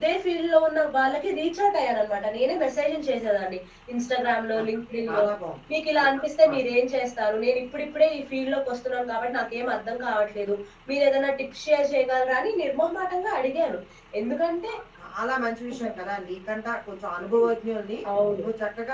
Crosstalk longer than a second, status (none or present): none